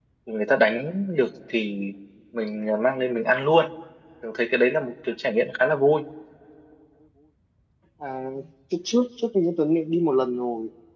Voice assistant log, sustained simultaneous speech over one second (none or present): none